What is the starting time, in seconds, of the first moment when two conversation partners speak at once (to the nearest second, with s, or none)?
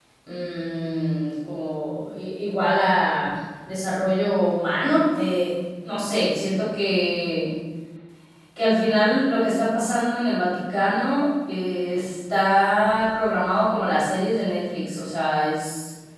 none